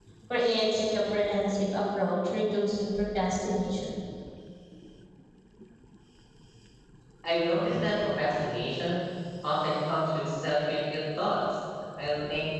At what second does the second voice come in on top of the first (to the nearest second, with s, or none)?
none